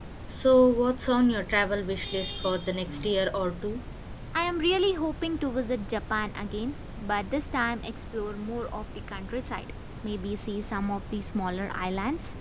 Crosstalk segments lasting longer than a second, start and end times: none

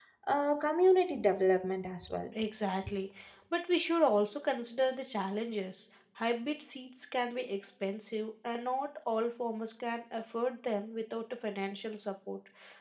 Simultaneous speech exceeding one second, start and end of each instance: none

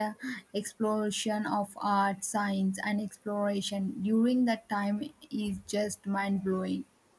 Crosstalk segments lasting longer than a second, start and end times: none

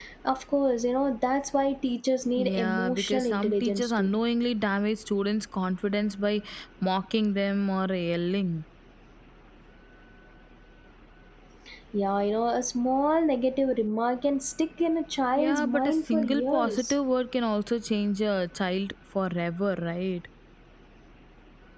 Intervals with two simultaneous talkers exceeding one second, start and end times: 2.4-4.2, 15.3-16.9

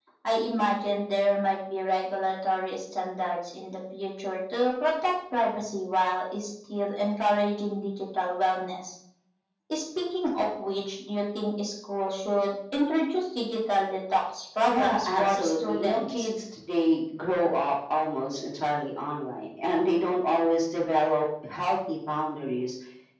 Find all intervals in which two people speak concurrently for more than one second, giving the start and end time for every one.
14.7-16.3

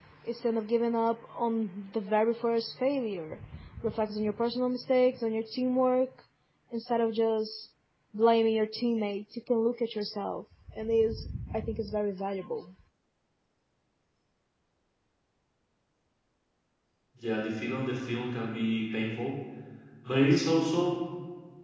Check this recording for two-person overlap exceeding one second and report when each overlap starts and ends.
none

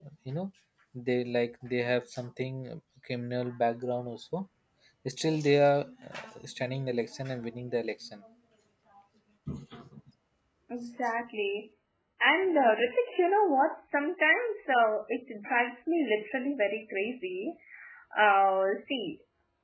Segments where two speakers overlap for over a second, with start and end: none

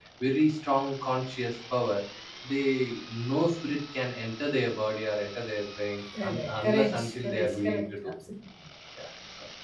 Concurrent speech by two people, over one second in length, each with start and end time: 6.2-8.1

